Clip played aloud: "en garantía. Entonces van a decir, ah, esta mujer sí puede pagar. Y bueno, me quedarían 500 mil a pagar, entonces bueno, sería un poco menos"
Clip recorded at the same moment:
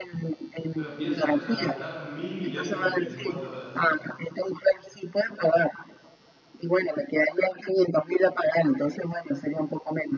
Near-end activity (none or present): present